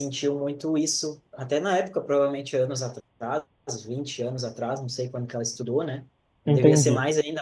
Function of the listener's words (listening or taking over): listening